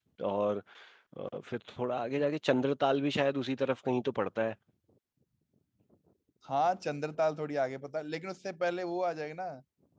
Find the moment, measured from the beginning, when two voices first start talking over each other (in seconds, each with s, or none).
none